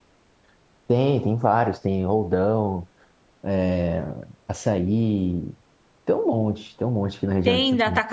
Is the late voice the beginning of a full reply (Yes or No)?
Yes